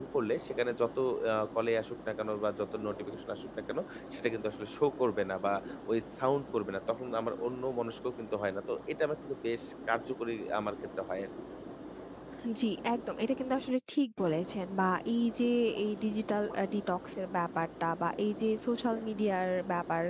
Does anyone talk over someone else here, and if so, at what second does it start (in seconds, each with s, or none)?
none